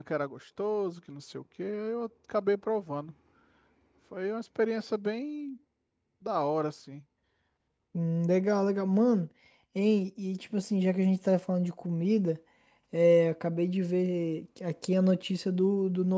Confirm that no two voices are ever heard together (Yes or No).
Yes